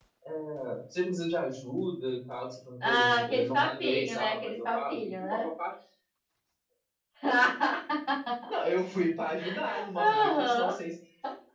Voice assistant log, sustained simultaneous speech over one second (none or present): present